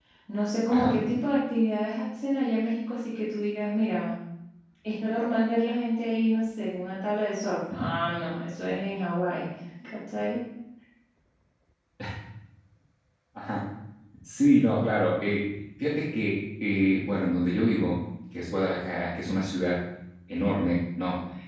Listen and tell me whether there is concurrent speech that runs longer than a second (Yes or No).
No